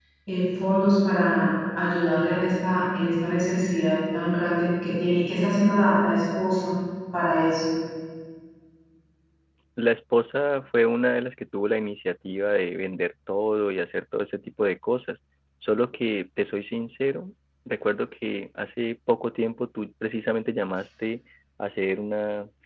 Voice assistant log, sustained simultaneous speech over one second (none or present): none